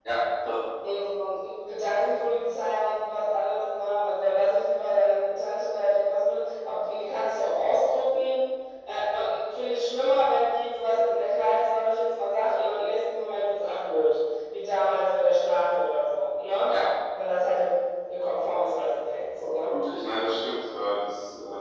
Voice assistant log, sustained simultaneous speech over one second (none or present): none